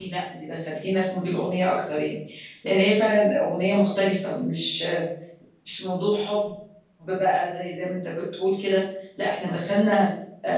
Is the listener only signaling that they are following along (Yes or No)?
Yes